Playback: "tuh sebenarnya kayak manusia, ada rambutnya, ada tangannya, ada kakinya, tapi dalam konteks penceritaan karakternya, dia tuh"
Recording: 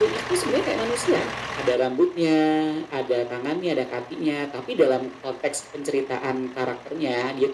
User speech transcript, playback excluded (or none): none